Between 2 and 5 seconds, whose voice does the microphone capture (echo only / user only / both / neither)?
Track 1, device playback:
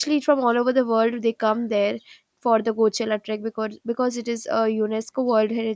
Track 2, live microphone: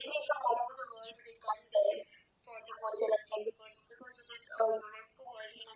echo only